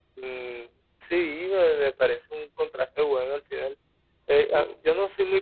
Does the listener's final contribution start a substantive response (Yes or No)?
No